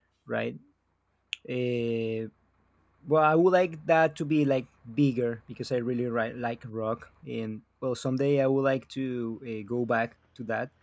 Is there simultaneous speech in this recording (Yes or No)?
No